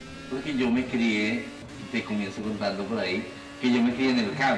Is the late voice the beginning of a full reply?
No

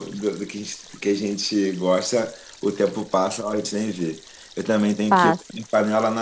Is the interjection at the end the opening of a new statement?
No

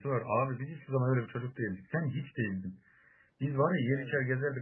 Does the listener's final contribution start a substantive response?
No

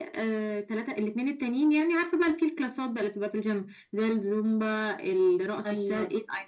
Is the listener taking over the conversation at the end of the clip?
Yes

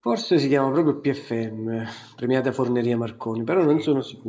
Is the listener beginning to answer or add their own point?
No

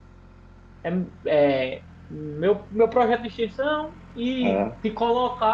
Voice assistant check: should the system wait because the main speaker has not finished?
Yes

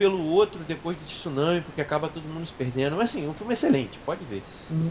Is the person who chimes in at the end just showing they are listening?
No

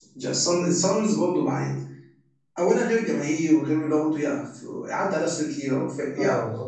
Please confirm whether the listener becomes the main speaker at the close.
Yes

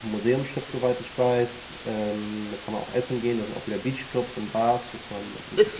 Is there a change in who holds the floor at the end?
Yes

